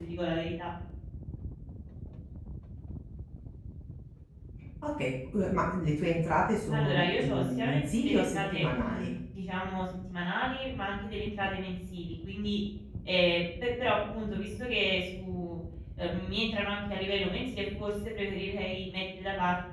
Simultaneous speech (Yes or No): Yes